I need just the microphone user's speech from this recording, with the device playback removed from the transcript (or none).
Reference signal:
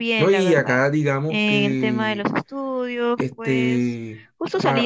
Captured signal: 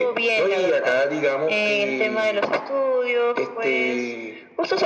none